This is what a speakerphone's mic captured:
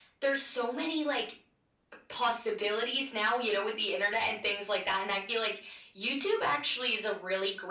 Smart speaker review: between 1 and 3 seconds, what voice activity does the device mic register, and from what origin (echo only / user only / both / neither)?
echo only